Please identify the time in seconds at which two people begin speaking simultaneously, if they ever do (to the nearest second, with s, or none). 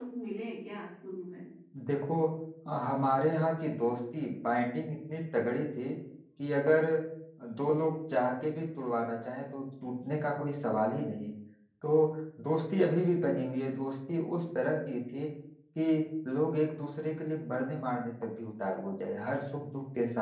none